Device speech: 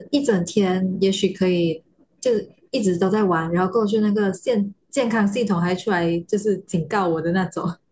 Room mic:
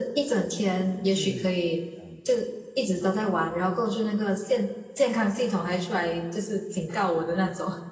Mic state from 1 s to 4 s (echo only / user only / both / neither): both